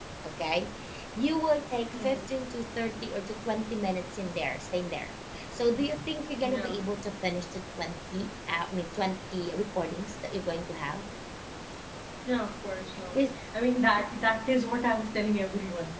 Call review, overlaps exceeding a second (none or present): none